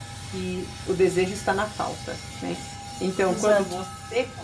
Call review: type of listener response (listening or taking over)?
listening